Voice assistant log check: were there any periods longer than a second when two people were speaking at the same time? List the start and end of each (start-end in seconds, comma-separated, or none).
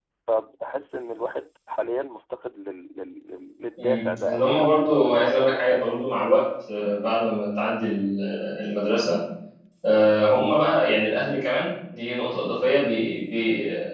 3.8-6.2